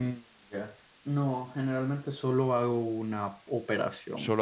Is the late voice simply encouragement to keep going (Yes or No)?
No